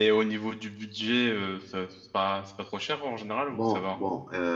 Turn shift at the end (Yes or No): Yes